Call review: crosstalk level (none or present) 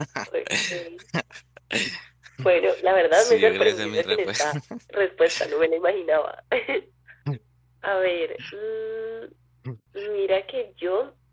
present